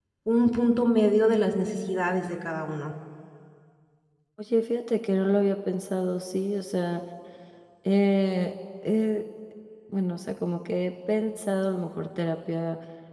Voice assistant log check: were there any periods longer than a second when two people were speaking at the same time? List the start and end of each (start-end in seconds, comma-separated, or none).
none